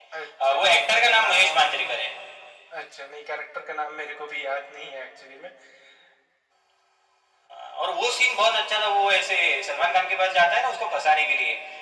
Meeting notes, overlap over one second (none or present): present